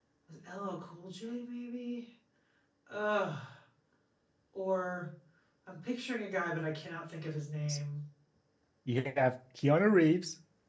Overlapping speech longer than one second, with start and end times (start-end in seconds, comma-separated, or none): none